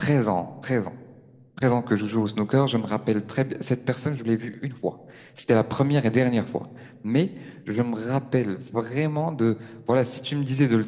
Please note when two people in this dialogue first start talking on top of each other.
none

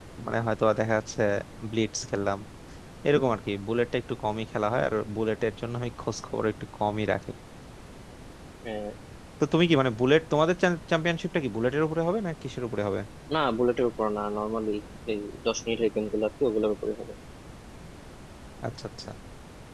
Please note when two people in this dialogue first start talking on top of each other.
none

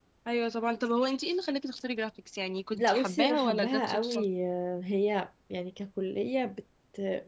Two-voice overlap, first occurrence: 2.8 s

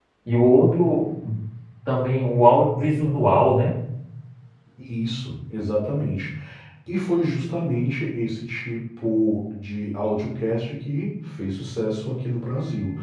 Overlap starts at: none

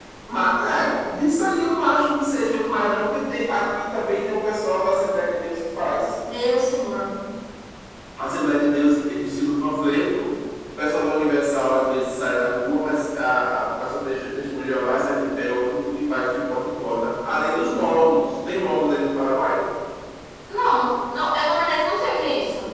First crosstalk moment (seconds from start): none

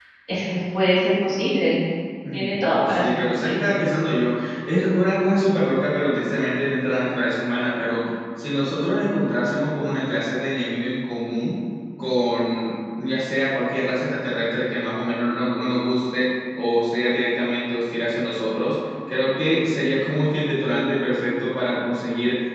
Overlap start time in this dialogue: 2.3 s

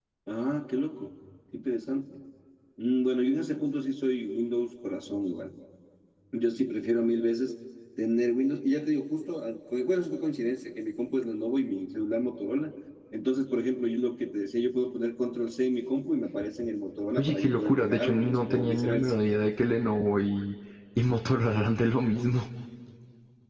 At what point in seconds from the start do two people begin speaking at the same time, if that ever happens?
17.2 s

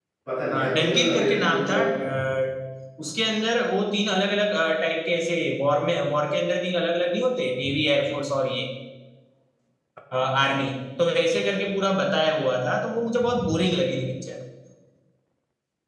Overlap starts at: 0.5 s

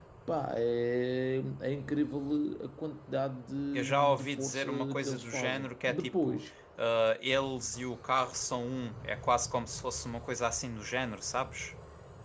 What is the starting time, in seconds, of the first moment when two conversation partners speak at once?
3.7 s

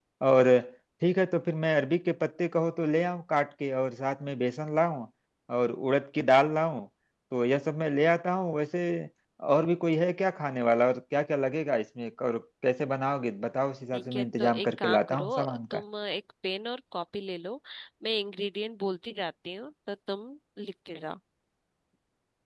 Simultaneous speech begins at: 13.9 s

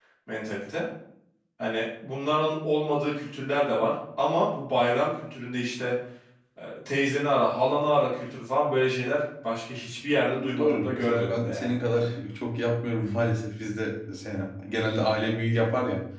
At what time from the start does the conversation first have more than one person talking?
10.3 s

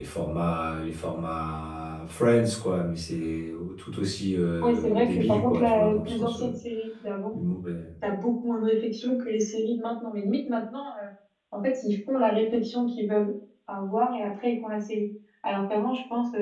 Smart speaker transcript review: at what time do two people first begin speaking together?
4.6 s

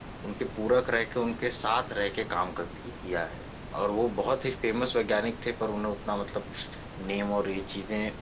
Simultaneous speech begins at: none

